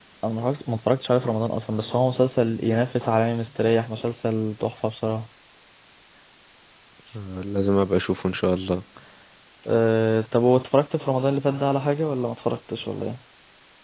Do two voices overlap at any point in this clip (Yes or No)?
No